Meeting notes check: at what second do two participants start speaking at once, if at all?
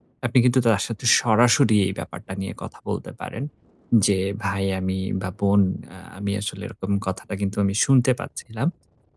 none

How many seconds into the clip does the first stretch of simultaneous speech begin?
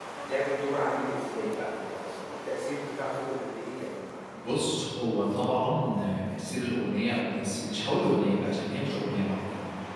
none

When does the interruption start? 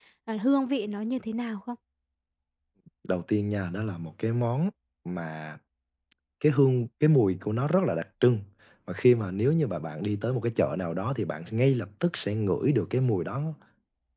none

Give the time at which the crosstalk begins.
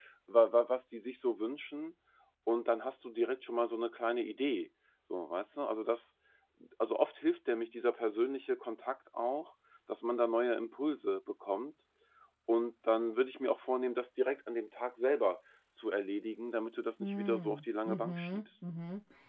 17.0 s

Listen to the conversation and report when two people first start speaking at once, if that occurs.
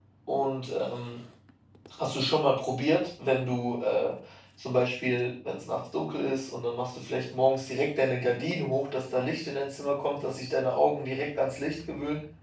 none

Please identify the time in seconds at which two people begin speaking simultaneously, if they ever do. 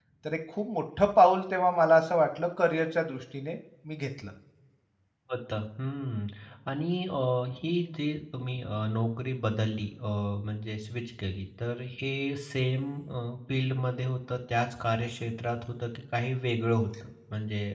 none

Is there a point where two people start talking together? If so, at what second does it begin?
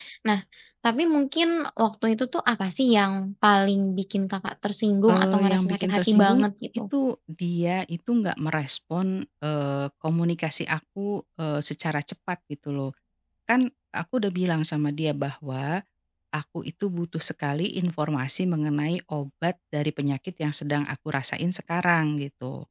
5.1 s

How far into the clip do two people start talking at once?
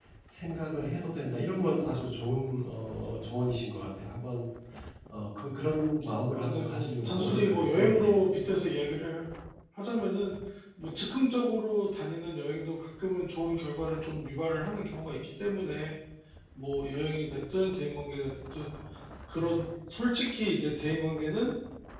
6.3 s

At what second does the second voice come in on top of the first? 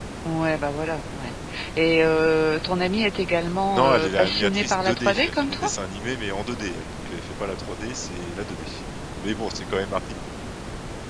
3.7 s

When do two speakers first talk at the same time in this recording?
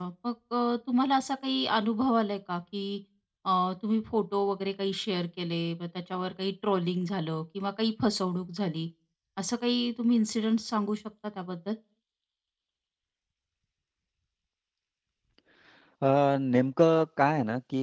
none

